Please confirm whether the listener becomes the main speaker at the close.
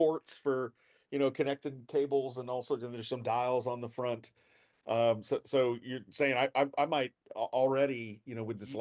No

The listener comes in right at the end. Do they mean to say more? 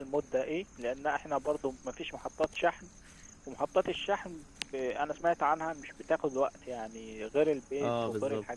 Yes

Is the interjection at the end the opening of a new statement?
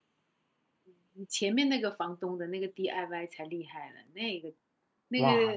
Yes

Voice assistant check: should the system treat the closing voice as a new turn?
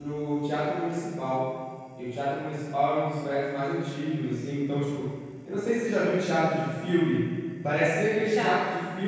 No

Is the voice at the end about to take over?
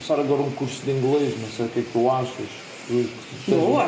Yes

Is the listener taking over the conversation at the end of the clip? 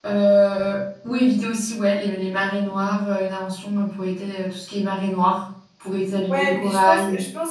Yes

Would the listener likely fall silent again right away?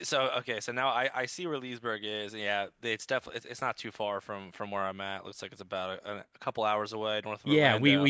No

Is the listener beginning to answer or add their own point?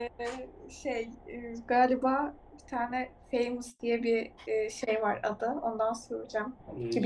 Yes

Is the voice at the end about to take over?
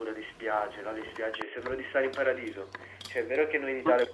No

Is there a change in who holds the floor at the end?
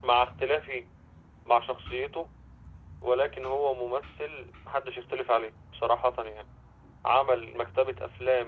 No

